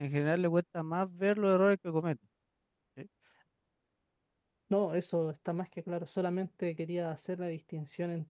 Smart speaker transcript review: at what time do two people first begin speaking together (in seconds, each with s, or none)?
none